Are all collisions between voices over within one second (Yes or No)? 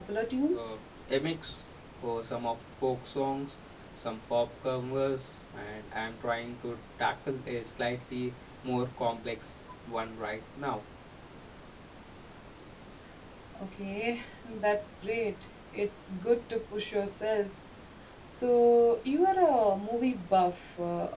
Yes